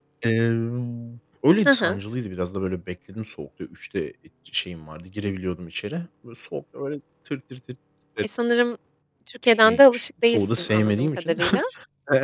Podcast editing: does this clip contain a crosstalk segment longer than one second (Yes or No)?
Yes